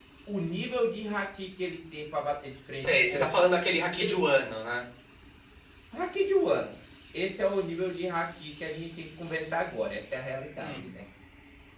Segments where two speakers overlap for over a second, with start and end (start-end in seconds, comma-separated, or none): none